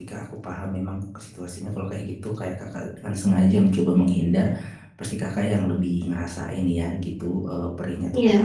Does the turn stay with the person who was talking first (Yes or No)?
Yes